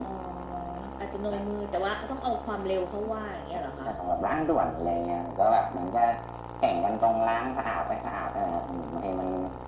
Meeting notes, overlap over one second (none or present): none